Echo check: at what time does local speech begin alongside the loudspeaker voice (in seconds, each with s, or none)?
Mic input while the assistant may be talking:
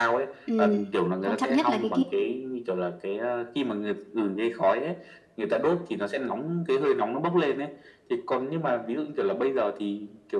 0.4 s